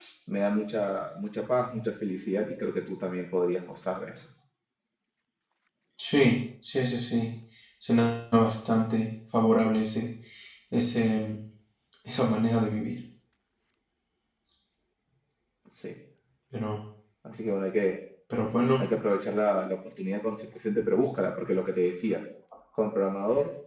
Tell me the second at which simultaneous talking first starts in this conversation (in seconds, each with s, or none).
none